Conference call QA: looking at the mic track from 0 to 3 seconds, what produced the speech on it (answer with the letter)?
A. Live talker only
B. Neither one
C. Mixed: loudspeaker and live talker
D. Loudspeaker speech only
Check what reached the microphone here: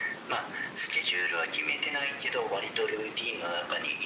D